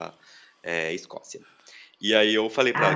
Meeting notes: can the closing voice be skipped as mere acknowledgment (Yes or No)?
Yes